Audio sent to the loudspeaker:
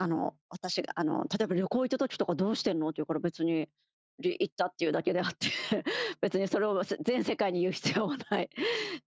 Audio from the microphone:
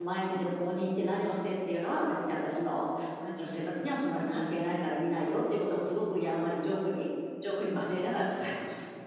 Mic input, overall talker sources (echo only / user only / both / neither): user only